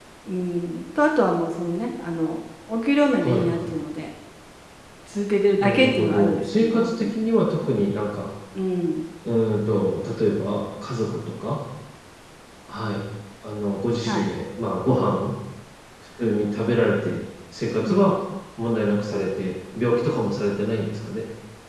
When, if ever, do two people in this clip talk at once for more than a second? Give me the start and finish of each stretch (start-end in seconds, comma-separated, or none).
5.6-7.1